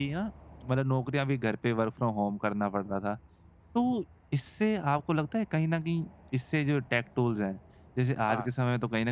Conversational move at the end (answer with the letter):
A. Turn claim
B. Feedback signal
B